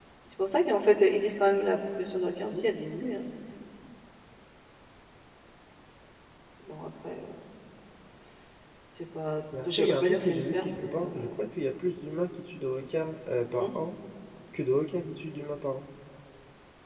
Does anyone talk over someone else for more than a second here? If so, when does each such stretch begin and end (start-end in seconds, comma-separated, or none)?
9.7-11.3